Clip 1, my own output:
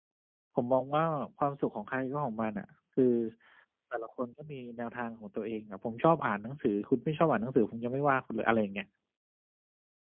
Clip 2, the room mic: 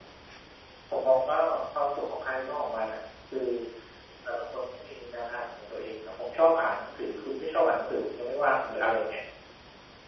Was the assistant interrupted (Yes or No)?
No